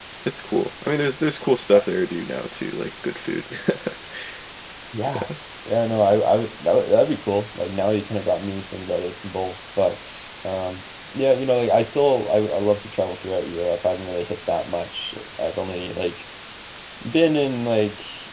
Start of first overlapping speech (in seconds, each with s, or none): none